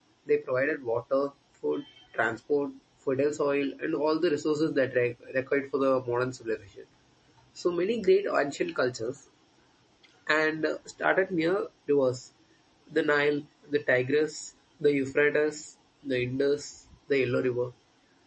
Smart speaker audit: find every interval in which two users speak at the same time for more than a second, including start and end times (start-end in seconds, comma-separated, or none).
none